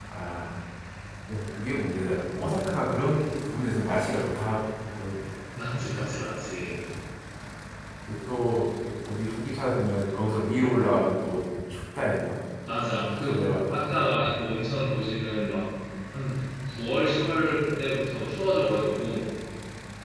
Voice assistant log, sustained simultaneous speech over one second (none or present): present